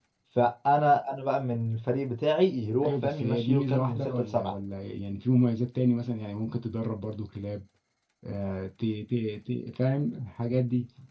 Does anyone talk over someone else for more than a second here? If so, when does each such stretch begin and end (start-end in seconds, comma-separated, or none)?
2.8-4.5